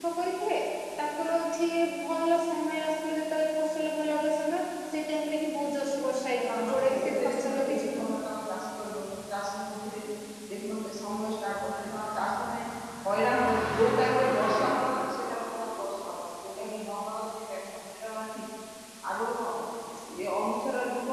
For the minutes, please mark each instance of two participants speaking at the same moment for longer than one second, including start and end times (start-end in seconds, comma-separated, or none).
6.5-8.1